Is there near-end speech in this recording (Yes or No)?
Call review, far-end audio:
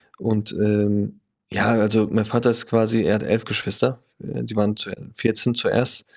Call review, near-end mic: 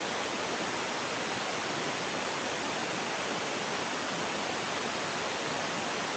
No